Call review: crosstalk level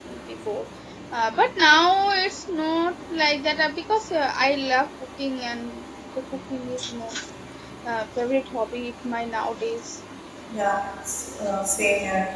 none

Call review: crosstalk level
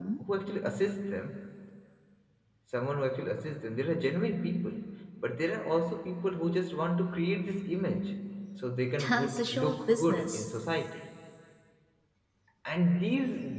present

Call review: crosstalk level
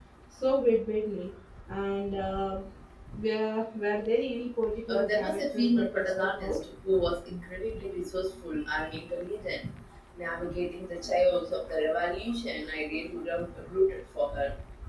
present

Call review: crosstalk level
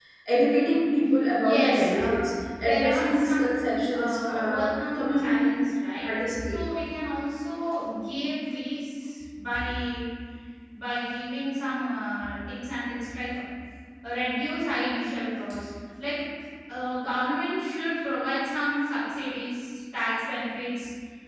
present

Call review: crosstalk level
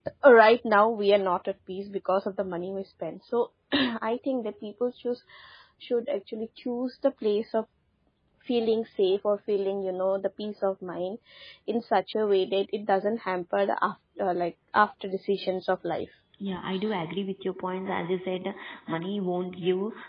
none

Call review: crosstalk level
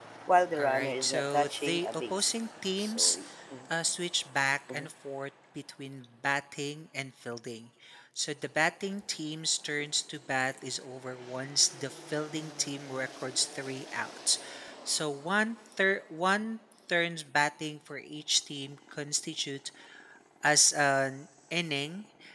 present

